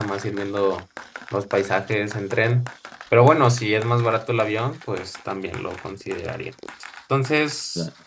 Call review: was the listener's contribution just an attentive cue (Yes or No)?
Yes